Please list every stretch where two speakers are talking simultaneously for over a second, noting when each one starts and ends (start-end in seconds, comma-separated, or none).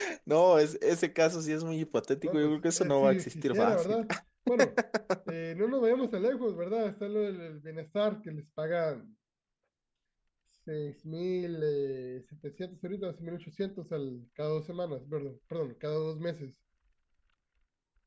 2.2-4.0